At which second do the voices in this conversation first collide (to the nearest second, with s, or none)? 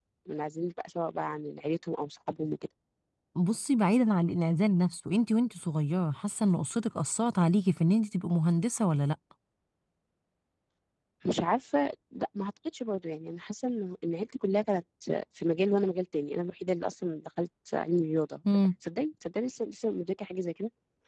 none